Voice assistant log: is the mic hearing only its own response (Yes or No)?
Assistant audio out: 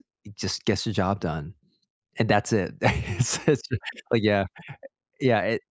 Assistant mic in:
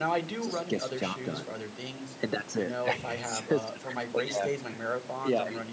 No